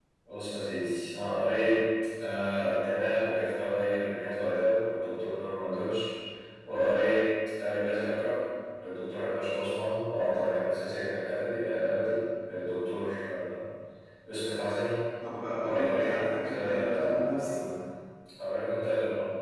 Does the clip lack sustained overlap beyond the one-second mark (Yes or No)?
No